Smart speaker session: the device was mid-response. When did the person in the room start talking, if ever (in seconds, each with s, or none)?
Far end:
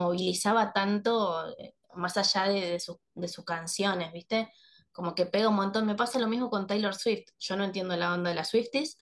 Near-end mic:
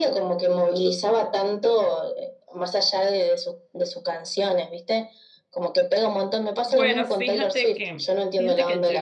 6.7 s